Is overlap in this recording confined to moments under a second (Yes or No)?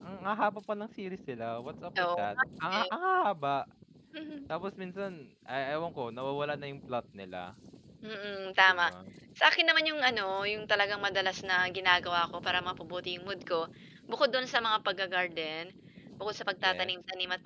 Yes